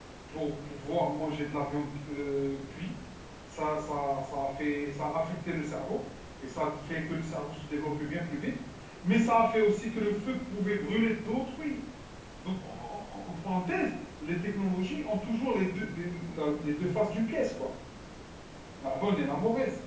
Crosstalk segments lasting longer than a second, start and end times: none

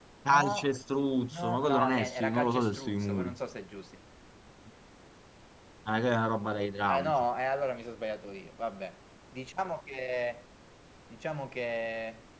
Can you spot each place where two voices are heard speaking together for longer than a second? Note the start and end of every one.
1.3-3.4

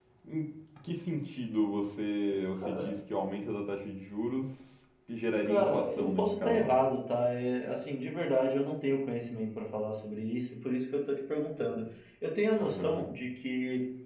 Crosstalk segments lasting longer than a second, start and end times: 5.5-6.7

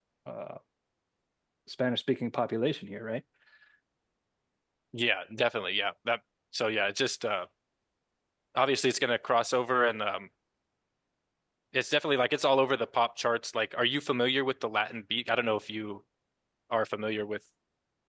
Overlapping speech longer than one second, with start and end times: none

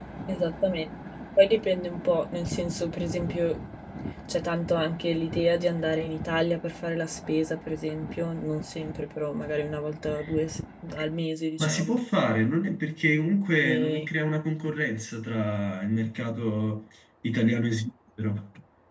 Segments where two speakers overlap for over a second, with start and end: none

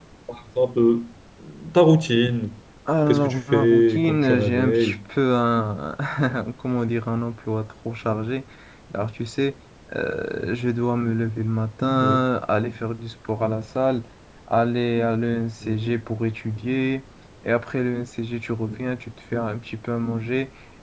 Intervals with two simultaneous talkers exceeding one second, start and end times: 3.1-5.0

